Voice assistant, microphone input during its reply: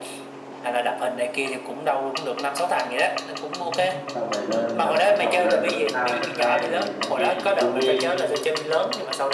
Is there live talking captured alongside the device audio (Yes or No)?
Yes